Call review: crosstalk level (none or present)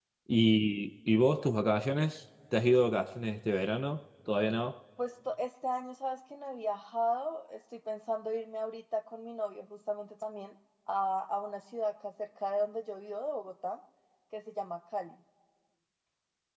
none